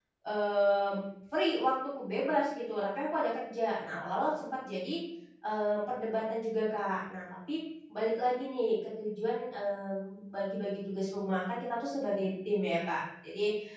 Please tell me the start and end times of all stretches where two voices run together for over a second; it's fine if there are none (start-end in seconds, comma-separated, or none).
none